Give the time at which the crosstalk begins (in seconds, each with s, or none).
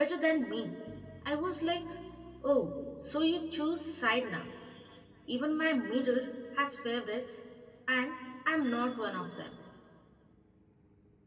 none